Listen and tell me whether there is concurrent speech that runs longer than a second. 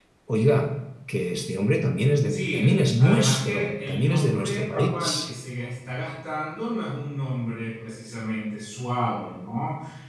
Yes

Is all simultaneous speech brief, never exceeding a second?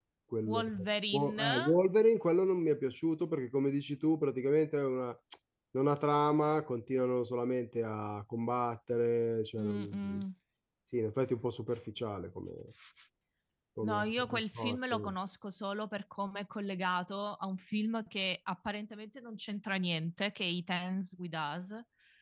No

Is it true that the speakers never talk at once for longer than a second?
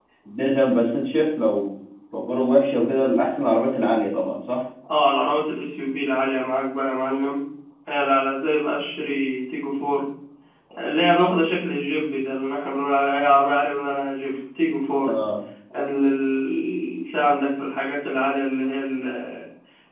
Yes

